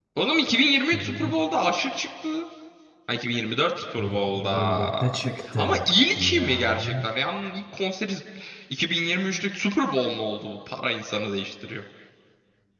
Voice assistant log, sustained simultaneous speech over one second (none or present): present